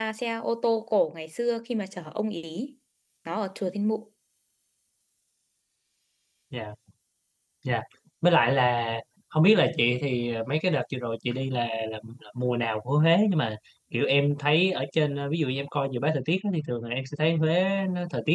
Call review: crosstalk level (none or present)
none